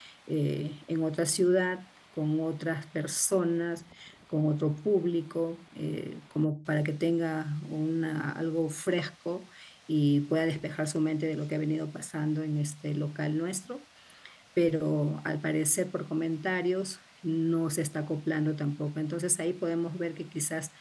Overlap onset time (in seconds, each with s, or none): none